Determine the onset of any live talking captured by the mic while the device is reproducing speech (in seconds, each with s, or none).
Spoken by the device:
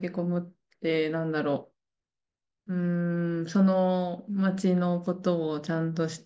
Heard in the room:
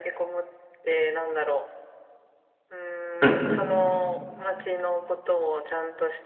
3.2 s